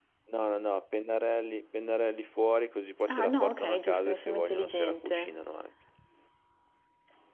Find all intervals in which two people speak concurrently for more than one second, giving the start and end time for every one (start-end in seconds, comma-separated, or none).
3.1-5.3